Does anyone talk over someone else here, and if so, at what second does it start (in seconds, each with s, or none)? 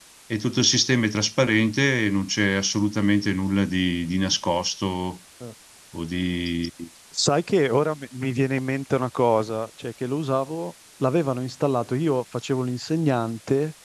none